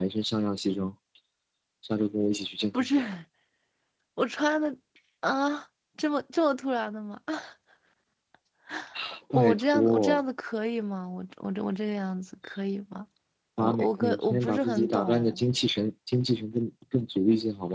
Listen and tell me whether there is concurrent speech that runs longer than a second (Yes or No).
Yes